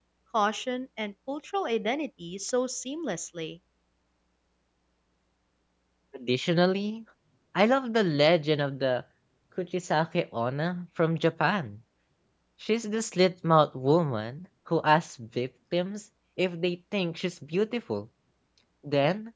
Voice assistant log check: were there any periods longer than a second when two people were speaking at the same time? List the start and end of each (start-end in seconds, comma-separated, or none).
none